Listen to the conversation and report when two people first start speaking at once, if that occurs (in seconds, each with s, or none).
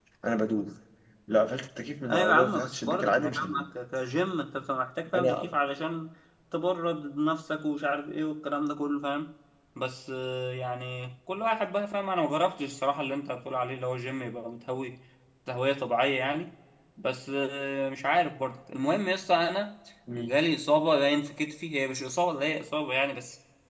2.1 s